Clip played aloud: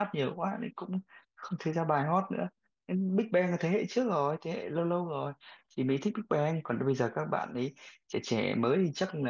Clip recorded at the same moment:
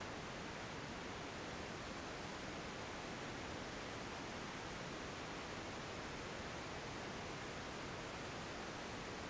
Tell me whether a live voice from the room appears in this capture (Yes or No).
No